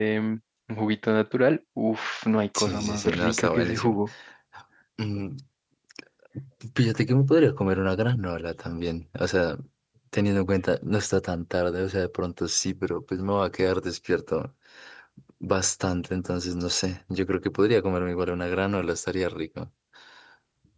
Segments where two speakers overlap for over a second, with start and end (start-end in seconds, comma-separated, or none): 2.6-4.0